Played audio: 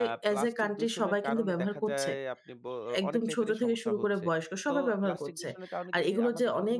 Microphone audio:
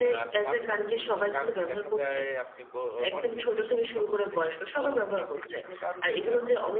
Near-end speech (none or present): present